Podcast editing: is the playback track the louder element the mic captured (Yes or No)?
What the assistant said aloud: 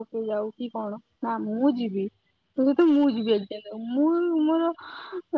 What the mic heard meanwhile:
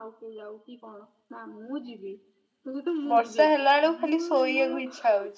No